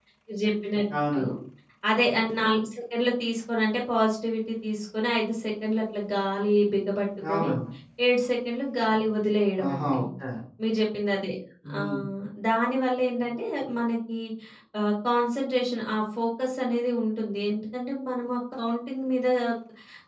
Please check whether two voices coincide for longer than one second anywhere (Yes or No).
No